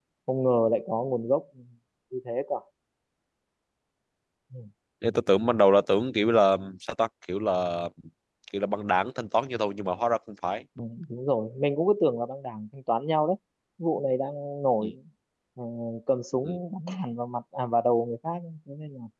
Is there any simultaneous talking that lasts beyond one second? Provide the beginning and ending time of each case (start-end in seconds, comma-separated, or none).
none